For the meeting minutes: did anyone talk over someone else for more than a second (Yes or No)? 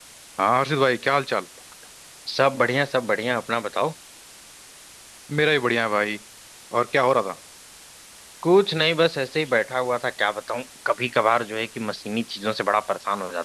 No